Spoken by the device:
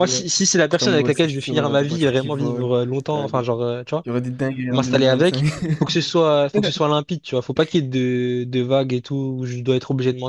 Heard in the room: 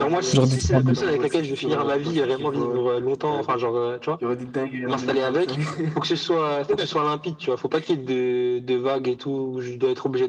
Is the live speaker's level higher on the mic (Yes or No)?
Yes